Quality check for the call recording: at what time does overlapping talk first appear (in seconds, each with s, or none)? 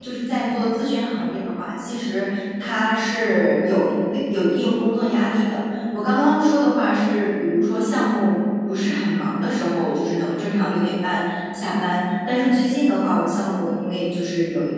none